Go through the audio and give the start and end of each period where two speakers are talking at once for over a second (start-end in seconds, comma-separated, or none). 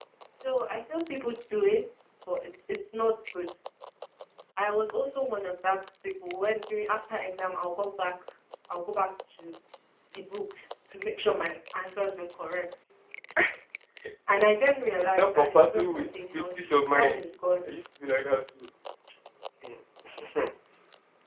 15.0-17.2